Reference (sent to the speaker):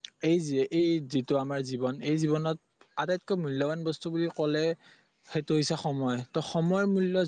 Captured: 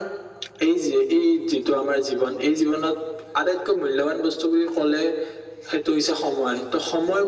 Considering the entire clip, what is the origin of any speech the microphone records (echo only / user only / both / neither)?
echo only